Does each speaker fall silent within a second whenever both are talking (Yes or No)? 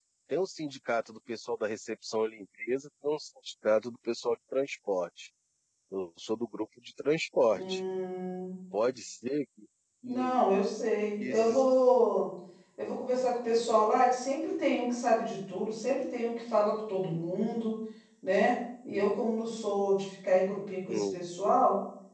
Yes